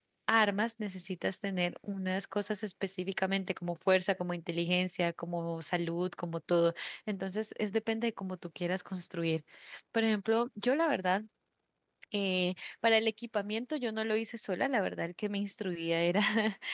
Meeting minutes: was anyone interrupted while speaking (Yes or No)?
No